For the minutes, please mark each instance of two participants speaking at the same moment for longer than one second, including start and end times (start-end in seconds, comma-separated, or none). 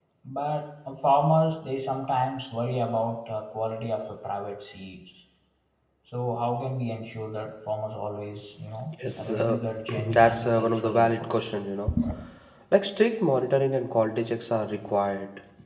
10.2-11.4